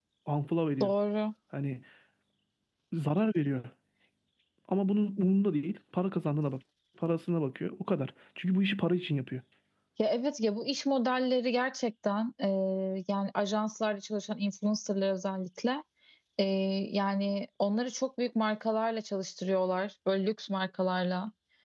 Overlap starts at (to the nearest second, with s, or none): none